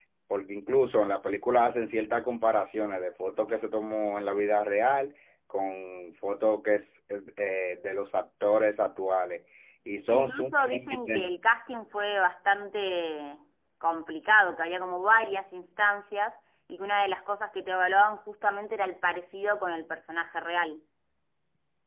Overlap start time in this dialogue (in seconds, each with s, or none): 10.1 s